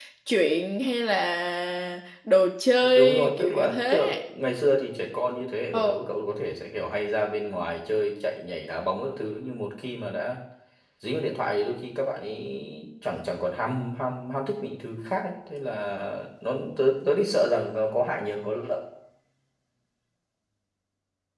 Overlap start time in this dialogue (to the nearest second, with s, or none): 3 s